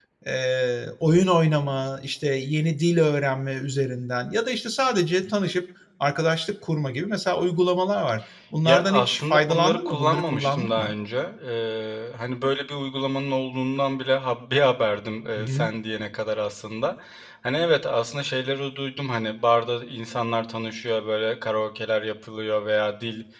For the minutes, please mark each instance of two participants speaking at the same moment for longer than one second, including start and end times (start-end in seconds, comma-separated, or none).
8.6-10.9